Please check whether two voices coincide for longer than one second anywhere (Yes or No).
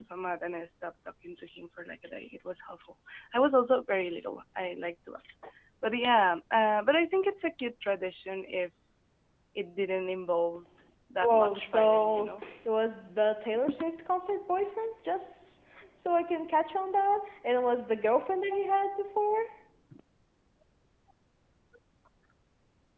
Yes